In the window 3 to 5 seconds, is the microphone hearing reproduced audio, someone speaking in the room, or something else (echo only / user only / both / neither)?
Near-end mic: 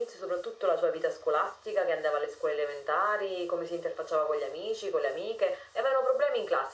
echo only